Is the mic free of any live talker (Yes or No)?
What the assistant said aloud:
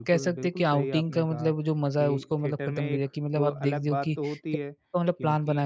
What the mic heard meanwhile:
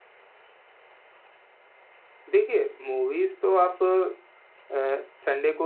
No